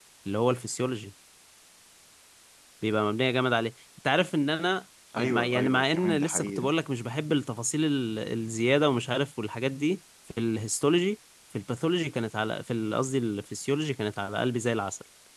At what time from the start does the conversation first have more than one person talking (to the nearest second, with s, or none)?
5 s